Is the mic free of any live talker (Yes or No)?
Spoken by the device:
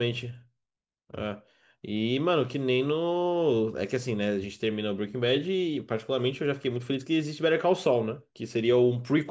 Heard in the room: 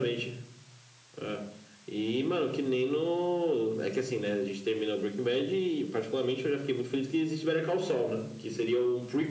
Yes